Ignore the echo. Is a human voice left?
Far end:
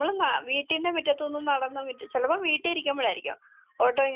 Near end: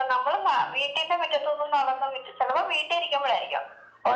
No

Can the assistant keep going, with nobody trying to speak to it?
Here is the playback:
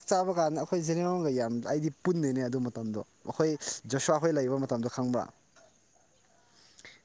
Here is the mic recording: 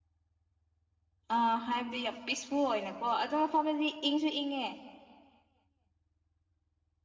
No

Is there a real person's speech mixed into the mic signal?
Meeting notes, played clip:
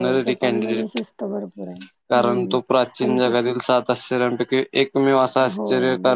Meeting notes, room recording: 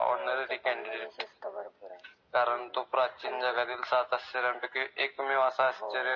No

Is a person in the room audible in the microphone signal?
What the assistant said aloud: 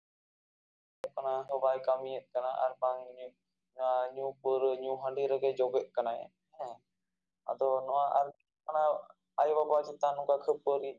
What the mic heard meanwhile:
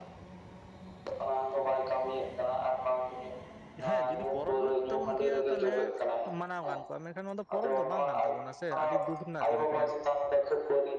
Yes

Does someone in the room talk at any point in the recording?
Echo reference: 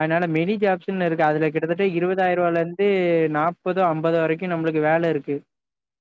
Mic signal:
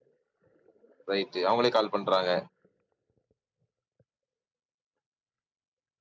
Yes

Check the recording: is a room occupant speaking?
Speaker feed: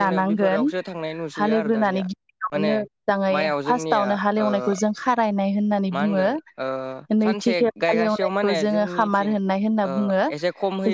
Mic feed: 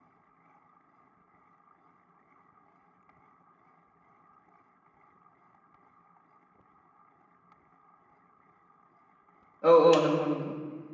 Yes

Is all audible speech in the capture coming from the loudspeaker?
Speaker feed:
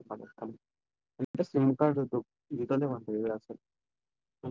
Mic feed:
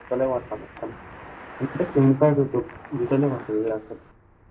Yes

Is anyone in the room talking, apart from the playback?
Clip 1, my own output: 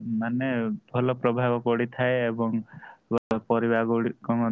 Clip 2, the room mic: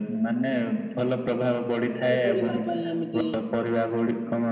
Yes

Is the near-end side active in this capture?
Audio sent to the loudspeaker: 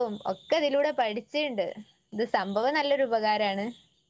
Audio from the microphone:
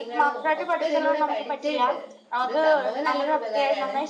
Yes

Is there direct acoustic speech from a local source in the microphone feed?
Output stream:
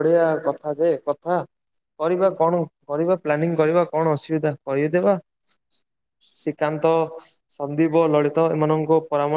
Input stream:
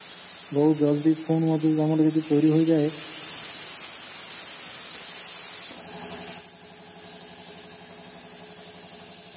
Yes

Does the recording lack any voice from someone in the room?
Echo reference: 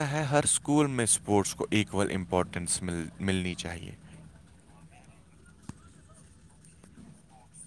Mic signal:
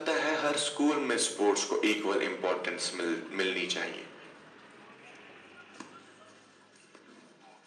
Yes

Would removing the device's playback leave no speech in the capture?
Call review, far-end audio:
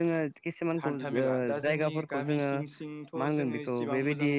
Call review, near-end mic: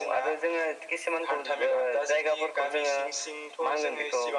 Yes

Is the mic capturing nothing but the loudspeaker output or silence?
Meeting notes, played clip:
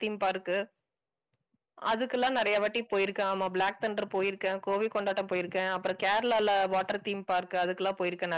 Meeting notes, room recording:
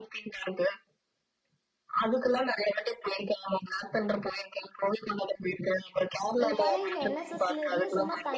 No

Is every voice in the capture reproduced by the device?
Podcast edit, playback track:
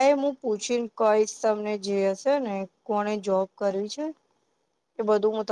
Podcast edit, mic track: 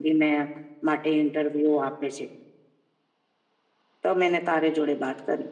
No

